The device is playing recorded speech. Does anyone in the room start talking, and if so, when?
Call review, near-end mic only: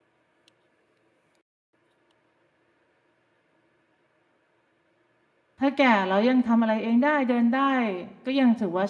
5.6 s

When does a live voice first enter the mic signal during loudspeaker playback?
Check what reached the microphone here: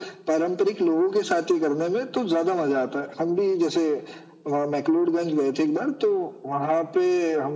none

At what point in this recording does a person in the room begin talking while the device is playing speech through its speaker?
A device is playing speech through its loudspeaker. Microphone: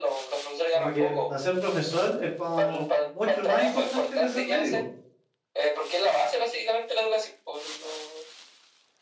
0.7 s

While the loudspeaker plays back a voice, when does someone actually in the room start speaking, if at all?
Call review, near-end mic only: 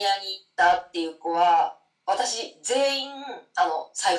none

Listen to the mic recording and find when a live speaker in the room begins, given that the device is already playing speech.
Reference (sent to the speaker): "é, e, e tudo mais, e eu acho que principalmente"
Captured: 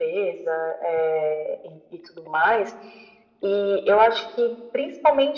none

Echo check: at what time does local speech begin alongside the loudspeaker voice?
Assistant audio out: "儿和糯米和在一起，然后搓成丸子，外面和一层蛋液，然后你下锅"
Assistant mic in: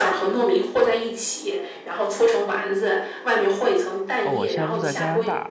4.2 s

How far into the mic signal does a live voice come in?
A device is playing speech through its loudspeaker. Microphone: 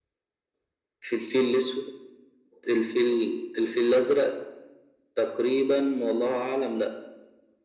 none

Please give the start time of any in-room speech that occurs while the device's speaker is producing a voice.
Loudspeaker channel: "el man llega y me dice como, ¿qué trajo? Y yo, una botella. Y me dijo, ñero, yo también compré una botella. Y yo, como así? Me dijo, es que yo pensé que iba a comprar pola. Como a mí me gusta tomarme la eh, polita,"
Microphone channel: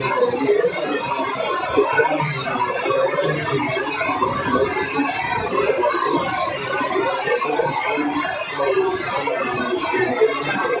none

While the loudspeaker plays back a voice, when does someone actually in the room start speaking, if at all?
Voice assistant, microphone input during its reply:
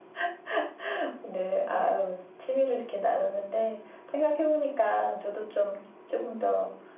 none

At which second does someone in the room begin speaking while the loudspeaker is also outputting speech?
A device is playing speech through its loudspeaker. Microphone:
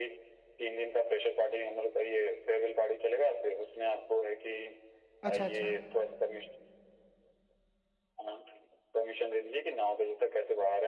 5.2 s

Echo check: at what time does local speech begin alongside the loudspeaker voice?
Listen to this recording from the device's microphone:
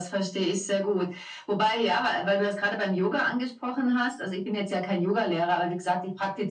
none

